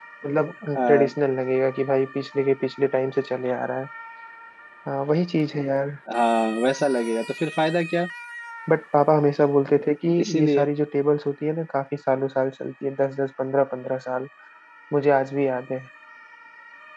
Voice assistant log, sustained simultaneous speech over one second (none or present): none